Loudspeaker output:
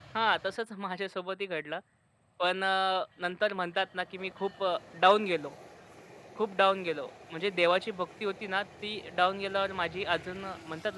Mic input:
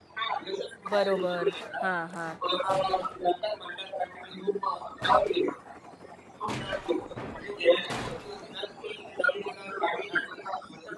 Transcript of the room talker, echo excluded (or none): बरोबर. हां, हां.